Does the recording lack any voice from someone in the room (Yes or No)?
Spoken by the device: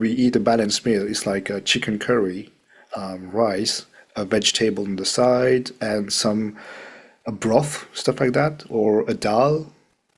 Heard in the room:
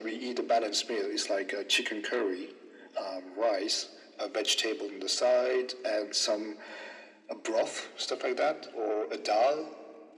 Yes